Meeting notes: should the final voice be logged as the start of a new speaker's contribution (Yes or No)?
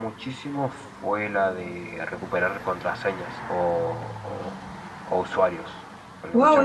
Yes